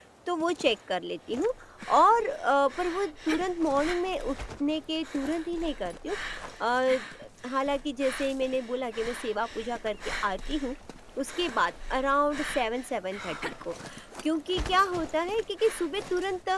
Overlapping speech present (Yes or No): No